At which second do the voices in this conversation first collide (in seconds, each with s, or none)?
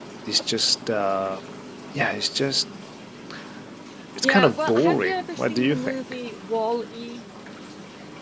4.2 s